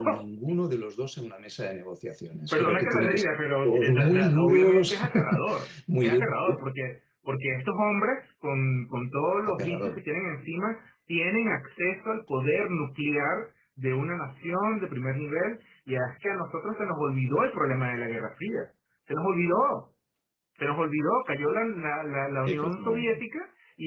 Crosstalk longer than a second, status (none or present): present